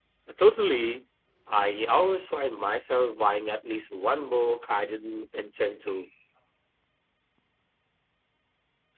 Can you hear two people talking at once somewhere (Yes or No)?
No